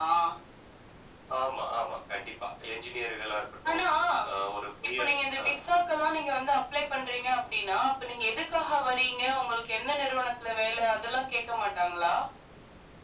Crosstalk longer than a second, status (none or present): none